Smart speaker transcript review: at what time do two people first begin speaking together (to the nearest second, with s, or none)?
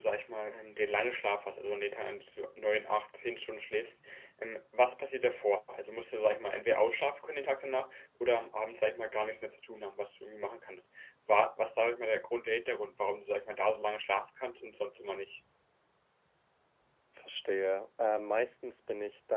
none